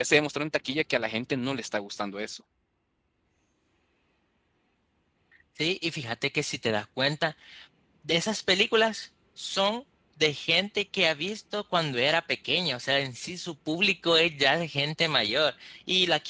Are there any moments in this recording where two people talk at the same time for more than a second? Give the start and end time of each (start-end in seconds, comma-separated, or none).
none